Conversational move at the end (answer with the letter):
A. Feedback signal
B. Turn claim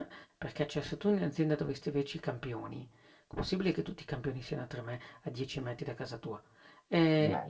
A